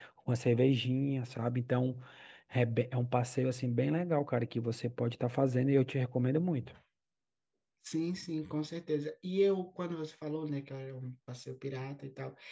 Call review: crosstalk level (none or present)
none